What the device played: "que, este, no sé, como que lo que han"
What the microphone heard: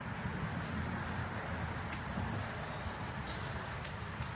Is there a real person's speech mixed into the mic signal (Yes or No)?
No